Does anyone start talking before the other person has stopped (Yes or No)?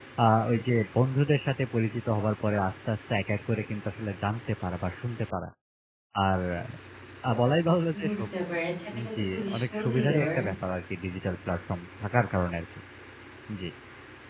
Yes